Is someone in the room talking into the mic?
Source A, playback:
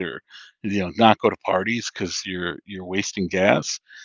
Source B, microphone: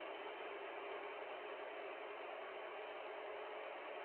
No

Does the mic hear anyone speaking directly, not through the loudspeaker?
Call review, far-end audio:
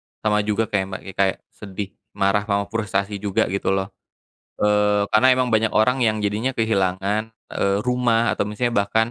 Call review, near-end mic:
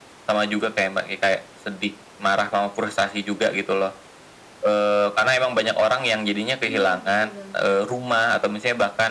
Yes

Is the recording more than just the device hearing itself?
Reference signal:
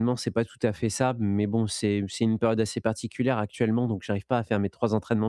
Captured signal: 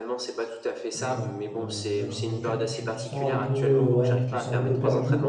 Yes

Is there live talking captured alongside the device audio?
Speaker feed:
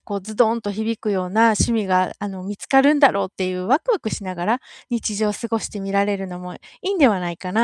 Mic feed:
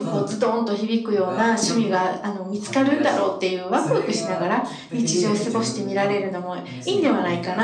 Yes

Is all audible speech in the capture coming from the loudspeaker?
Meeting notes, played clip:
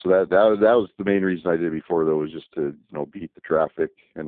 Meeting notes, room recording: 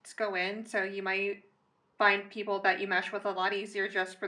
No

